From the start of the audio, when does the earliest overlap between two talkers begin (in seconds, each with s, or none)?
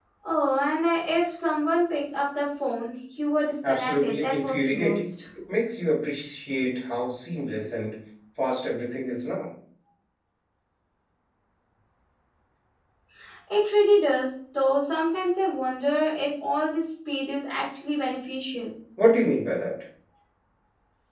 3.6 s